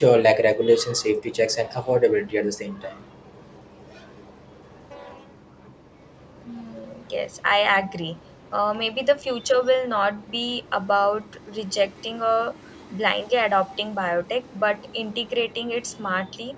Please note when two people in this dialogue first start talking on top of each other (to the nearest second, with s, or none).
none